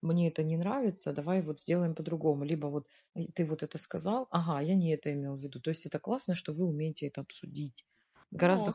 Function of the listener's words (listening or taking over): taking over